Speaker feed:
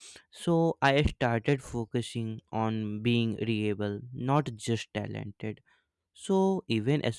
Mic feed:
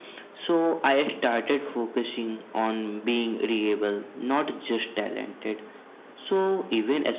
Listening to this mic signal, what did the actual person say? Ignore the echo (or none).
none